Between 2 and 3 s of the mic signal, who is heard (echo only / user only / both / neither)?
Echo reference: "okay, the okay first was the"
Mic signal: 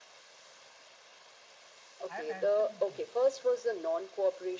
both